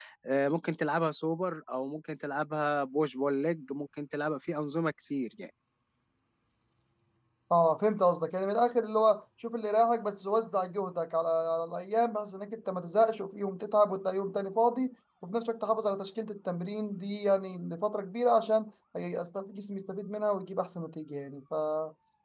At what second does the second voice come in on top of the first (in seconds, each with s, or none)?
none